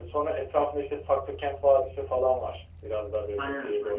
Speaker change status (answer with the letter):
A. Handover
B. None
B